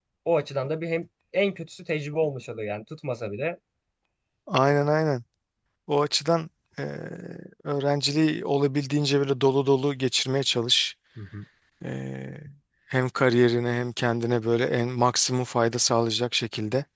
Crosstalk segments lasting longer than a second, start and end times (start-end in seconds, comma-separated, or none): none